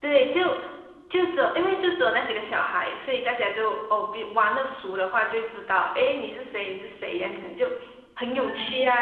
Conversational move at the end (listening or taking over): listening